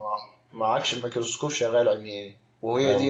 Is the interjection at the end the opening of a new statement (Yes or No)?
Yes